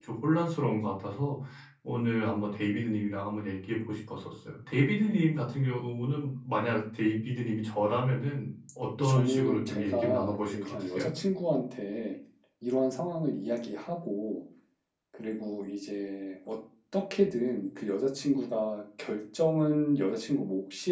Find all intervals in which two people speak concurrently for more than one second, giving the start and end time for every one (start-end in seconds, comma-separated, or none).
9.0-11.1